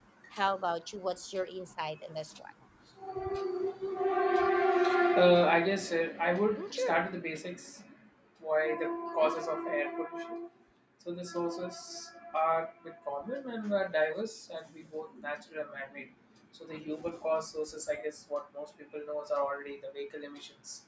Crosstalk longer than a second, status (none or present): none